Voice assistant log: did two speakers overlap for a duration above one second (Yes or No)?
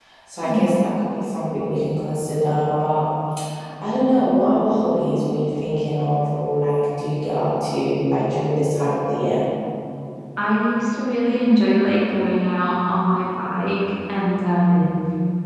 No